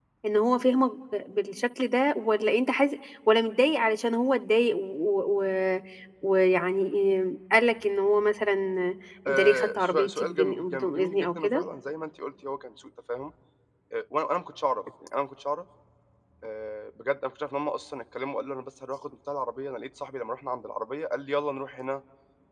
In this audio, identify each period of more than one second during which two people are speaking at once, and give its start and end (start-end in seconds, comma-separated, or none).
9.3-11.6